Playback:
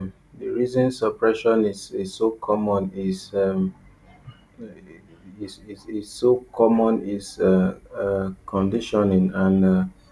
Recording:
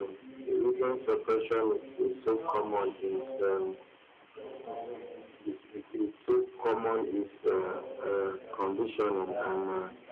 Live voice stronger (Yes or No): No